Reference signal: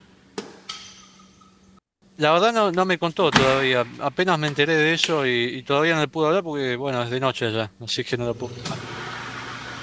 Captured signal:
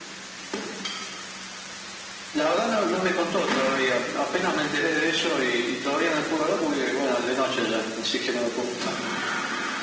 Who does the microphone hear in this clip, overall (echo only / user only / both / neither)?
echo only